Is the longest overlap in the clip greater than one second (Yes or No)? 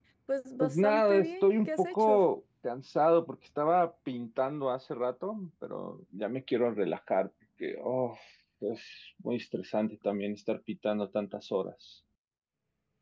Yes